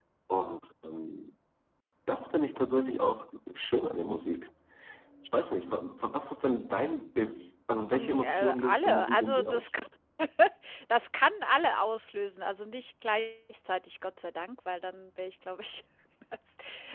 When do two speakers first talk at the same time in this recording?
7.9 s

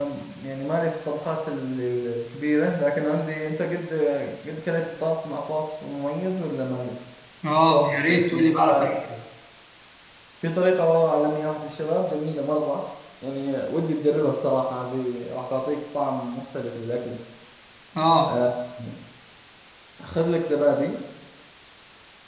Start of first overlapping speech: 7.6 s

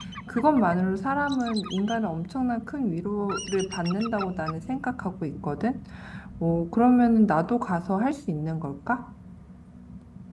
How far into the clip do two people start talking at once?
none

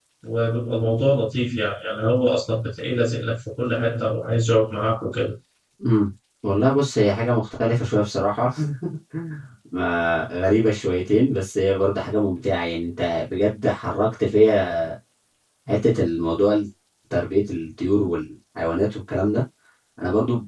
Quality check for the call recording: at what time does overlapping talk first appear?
none

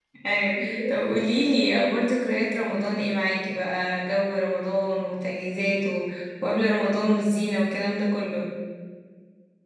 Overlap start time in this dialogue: 0.5 s

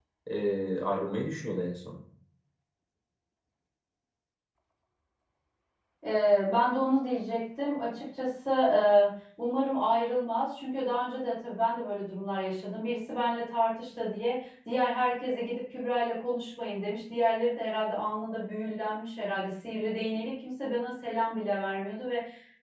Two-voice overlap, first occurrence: none

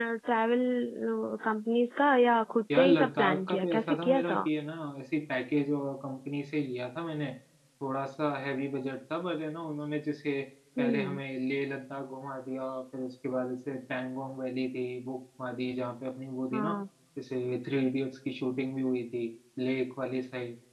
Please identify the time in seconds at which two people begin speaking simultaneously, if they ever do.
2.7 s

